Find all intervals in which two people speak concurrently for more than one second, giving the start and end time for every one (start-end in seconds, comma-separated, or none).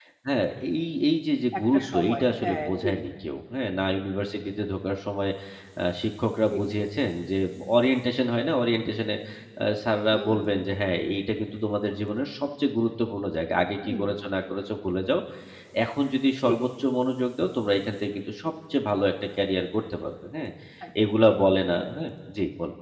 1.6-2.9